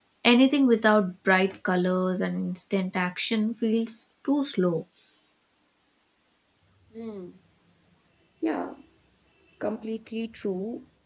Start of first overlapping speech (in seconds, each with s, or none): none